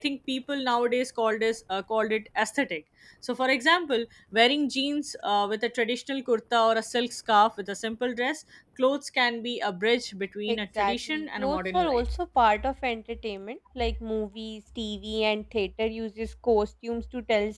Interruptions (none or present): present